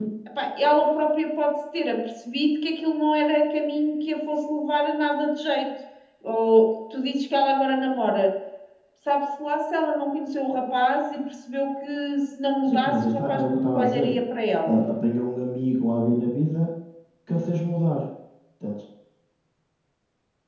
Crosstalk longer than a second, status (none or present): present